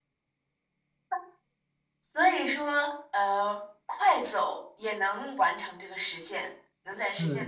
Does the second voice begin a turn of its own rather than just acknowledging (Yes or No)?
Yes